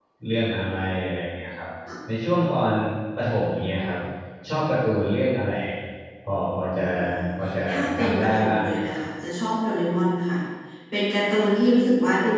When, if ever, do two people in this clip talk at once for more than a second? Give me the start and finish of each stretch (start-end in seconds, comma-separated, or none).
7.7-9.0